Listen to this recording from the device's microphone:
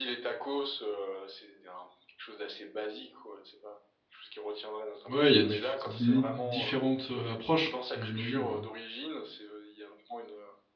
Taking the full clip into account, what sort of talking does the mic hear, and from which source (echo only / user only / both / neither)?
both